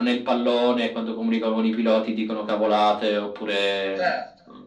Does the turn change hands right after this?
Yes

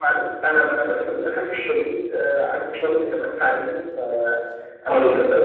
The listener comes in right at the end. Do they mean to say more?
No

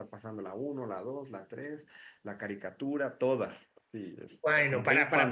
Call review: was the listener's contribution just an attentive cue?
No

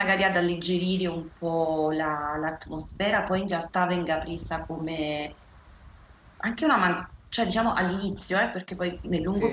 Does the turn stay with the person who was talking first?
Yes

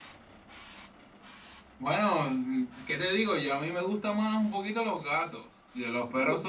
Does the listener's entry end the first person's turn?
No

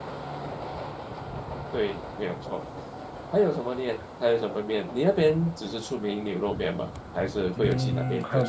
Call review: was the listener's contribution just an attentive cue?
No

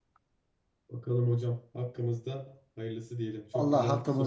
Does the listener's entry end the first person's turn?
Yes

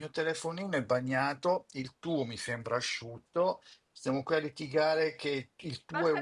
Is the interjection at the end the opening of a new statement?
Yes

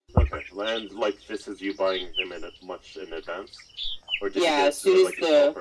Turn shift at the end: Yes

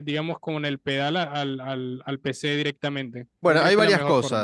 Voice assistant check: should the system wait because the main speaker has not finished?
No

